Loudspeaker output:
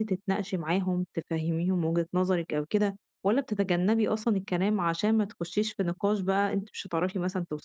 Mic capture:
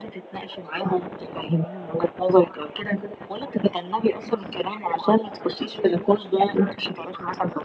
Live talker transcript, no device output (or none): none